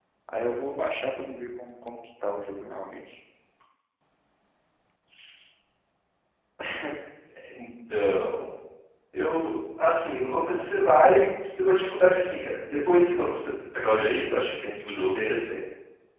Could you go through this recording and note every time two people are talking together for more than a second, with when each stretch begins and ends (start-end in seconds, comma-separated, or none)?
none